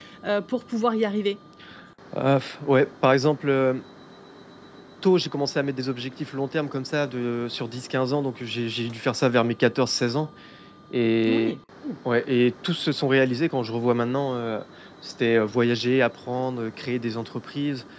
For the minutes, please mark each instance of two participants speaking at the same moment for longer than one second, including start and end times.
none

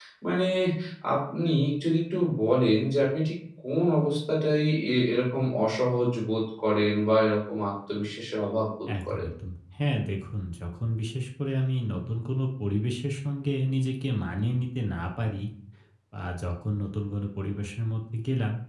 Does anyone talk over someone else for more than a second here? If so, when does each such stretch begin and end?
none

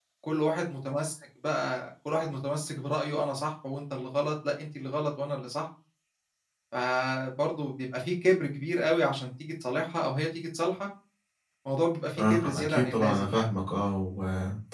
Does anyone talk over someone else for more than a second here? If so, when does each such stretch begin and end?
12.2-13.5

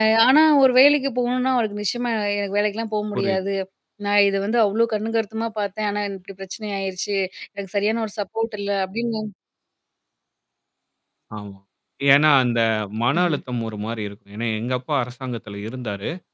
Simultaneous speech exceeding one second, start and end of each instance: none

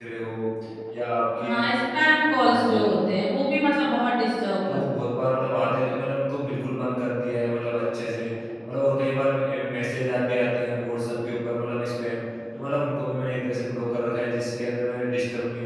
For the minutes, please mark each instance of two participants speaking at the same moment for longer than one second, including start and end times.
none

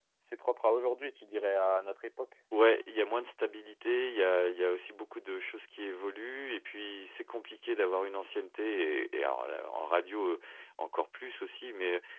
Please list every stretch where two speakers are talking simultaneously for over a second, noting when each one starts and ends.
none

